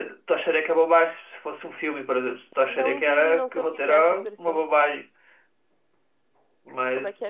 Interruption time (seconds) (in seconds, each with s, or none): 2.7 s